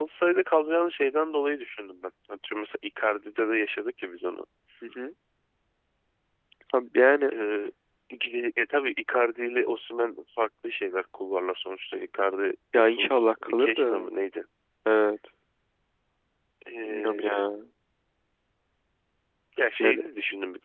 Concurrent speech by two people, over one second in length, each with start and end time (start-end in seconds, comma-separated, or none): 12.7-14.1